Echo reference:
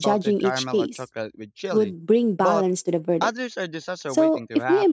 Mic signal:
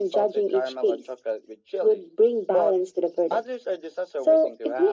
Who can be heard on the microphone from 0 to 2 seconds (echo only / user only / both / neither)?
echo only